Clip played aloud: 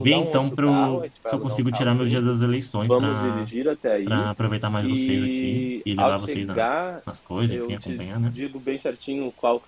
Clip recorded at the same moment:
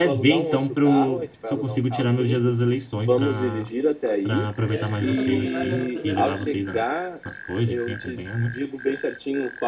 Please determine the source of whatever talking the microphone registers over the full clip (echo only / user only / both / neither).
both